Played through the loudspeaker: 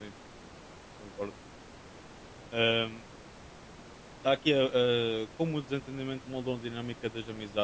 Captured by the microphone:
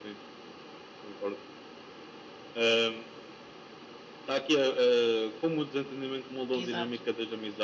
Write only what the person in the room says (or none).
Exato.